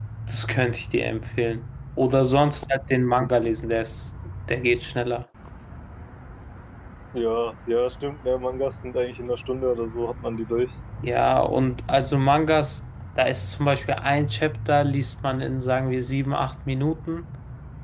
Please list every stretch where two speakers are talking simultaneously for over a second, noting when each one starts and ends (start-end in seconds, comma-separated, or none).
none